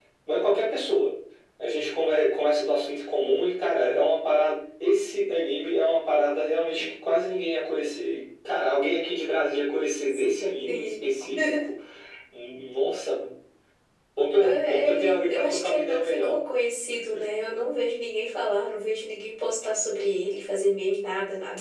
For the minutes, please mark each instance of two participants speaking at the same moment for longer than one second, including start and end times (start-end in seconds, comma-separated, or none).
14.4-16.4